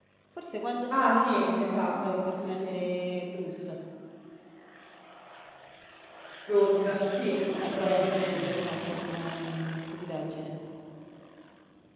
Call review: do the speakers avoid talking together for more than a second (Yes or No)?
No